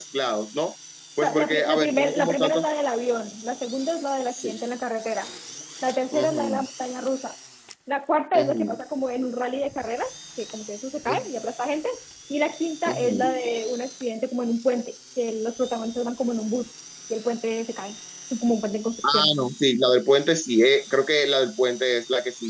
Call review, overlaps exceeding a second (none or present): present